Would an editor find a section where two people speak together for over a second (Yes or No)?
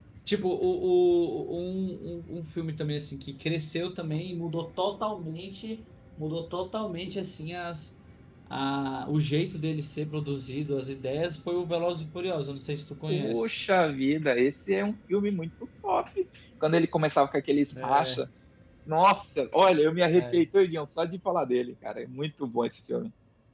No